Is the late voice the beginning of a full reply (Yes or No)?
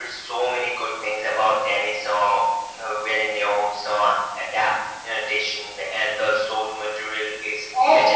Yes